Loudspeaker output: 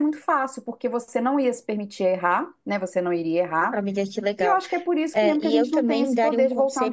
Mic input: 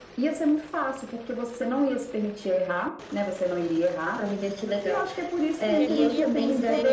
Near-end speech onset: 6 s

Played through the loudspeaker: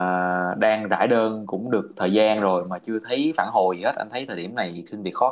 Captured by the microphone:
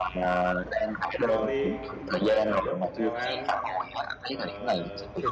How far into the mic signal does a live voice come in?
1 s

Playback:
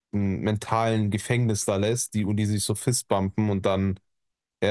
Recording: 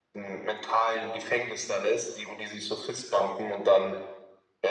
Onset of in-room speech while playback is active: none

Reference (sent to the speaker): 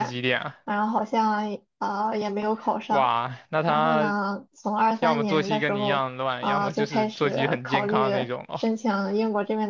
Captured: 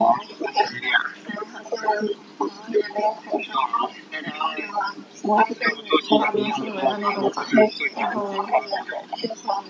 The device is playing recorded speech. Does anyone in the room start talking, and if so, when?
6 s

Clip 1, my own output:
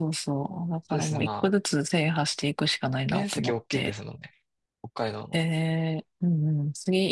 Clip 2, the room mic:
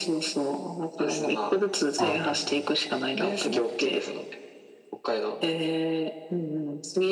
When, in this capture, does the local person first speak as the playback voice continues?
2 s

